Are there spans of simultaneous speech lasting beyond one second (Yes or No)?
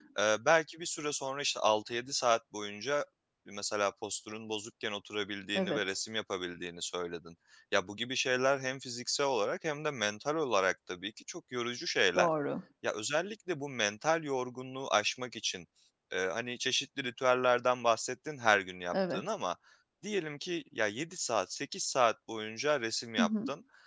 No